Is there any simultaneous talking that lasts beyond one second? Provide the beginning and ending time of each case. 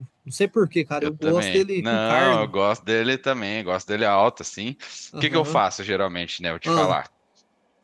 1.0-2.5

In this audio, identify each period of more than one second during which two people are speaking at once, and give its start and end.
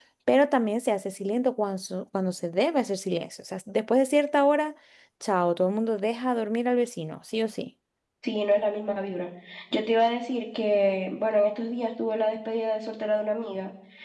none

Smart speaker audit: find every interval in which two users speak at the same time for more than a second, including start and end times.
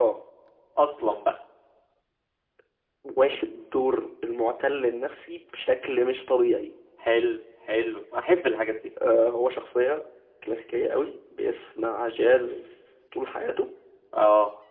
none

